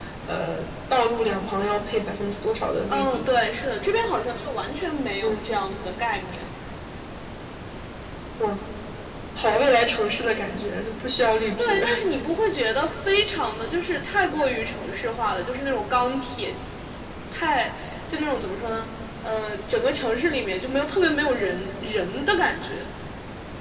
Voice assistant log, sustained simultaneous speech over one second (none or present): none